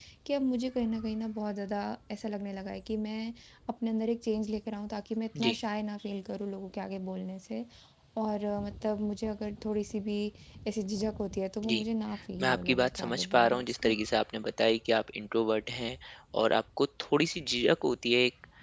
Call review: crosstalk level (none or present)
present